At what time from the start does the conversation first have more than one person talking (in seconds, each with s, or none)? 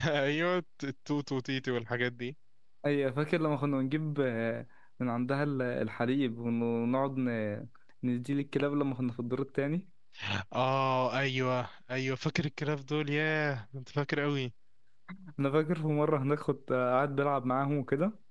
none